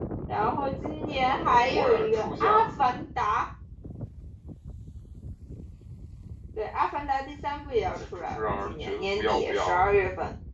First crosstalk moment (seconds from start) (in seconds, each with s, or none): 1.5 s